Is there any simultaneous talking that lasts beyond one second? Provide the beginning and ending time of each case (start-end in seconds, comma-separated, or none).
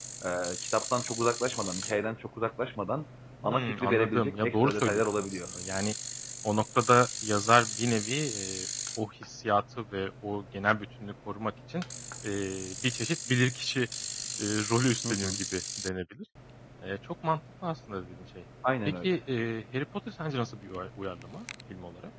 3.4-5.5